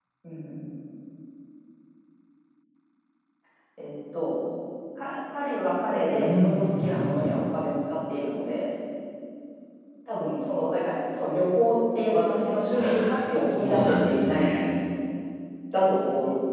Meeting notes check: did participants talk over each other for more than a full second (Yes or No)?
Yes